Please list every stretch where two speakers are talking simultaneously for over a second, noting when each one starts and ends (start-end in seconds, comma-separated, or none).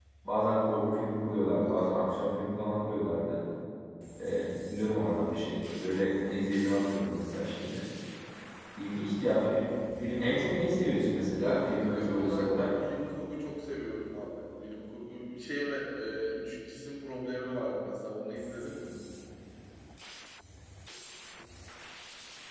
11.4-12.7